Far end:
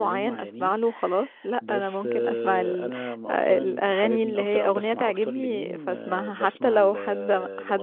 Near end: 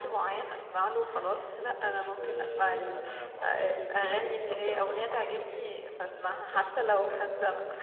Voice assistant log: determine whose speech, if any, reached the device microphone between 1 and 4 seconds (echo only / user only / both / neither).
echo only